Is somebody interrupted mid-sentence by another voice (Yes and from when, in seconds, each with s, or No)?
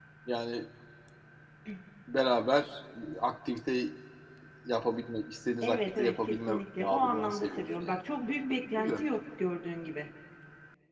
Yes, from 5.6 s